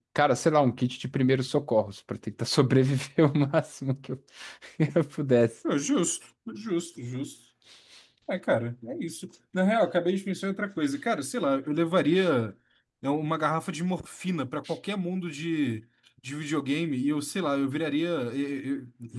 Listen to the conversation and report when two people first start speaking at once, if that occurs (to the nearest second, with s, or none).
none